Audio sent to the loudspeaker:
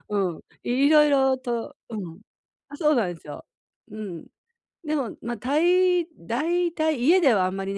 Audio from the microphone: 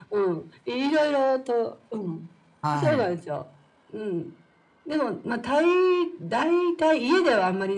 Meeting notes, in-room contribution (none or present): present